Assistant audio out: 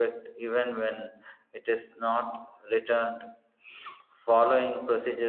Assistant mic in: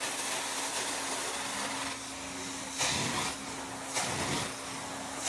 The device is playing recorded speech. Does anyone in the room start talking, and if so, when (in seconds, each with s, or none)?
none